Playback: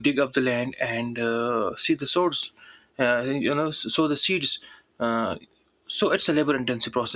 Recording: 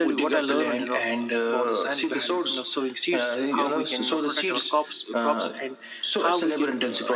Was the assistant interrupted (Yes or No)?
Yes